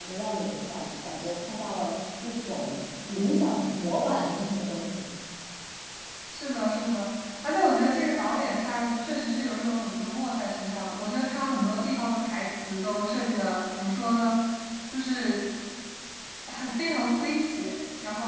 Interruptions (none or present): none